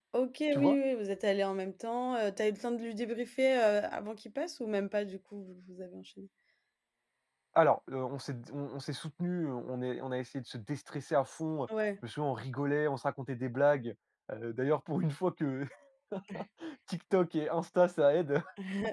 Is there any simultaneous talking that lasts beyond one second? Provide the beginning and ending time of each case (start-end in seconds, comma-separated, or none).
none